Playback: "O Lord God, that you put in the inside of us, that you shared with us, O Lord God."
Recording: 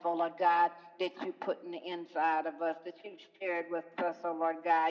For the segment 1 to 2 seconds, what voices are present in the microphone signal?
echo only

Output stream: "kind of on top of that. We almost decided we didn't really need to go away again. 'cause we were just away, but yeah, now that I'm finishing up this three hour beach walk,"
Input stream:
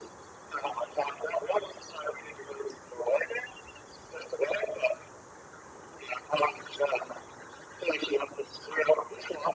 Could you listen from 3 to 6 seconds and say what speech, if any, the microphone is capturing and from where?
echo only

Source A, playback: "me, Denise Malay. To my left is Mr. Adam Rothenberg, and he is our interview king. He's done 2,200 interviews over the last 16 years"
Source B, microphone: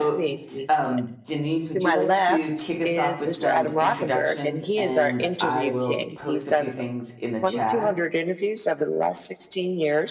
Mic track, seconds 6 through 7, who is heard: both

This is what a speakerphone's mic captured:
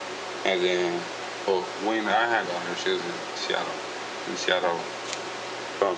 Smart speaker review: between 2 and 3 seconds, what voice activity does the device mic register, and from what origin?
echo only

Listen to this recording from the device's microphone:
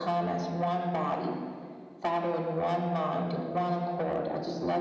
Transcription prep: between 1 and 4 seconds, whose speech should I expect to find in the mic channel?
echo only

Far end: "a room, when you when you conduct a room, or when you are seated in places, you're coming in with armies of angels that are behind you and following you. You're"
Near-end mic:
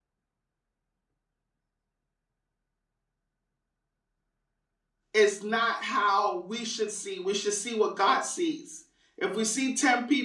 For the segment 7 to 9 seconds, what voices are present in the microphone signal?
user only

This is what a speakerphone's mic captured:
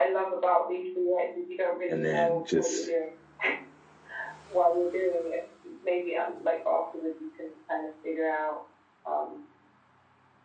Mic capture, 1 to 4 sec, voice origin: both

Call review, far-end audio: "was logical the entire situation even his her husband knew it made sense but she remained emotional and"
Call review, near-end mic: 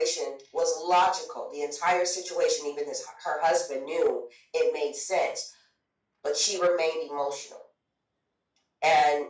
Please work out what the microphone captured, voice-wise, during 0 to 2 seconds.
echo only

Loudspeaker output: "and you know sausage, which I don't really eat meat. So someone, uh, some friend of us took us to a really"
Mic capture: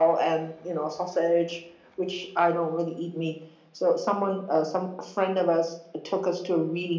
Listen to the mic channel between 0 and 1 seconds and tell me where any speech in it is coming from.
echo only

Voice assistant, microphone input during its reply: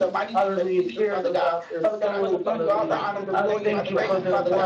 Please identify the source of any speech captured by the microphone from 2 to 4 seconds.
both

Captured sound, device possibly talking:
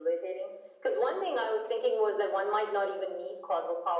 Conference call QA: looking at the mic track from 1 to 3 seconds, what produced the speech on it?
echo only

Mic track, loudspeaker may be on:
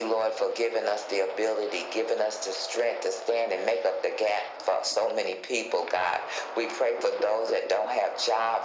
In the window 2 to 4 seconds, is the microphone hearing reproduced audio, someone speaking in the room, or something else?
echo only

